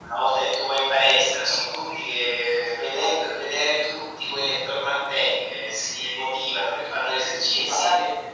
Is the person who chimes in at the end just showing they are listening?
No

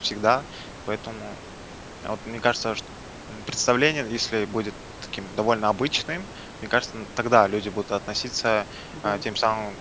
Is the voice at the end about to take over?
No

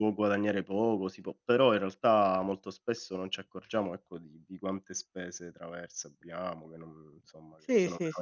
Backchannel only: No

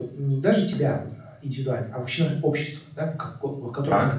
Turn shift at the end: No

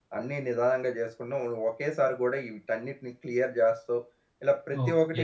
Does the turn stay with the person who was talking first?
No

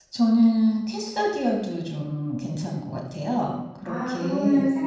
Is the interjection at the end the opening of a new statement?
Yes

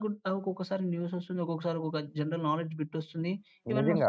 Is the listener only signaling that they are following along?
No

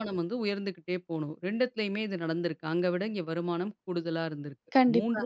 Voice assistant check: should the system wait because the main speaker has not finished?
Yes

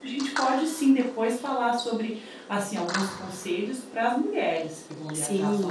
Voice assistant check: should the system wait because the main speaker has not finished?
No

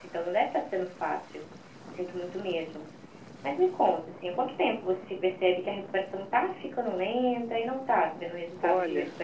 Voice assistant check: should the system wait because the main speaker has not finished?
No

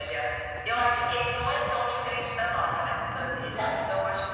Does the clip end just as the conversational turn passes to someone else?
No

